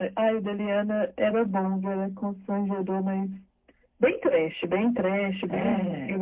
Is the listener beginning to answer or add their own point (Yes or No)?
No